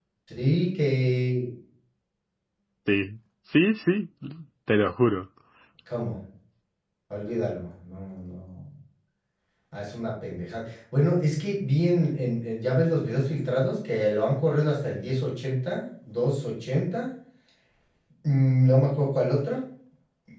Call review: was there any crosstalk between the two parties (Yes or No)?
No